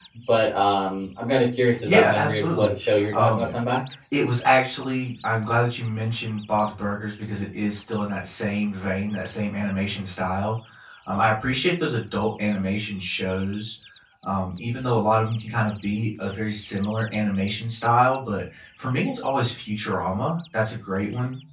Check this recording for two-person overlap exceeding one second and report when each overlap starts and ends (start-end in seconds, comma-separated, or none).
1.9-3.5